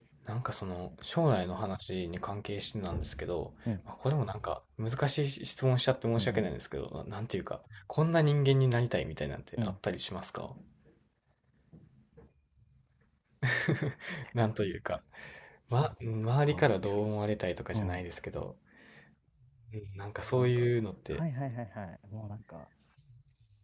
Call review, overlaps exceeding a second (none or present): none